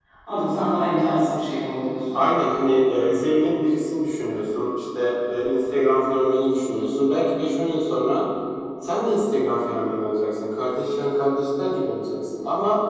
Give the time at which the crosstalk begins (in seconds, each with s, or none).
none